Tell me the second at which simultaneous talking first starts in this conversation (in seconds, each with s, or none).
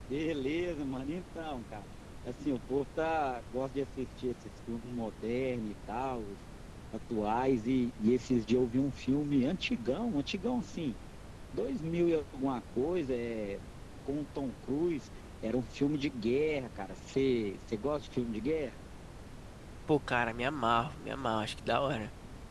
none